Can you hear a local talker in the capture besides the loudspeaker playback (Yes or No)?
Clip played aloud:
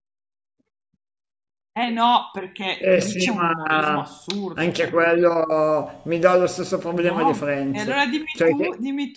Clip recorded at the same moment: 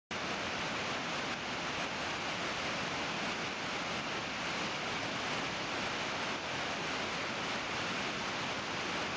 No